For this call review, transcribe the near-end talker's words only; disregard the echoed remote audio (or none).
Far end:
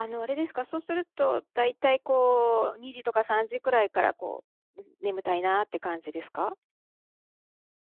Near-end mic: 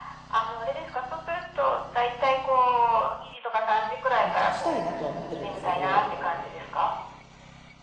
に勝ちたいなとは思ってるんですけど、